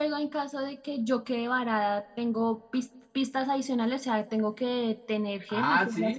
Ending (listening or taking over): taking over